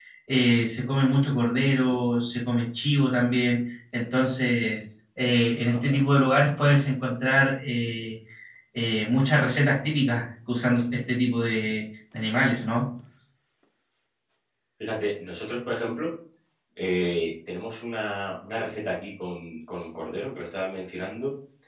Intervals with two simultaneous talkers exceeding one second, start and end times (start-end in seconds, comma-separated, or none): none